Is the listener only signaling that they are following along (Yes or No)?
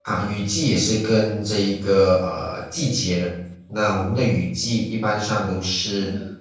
Yes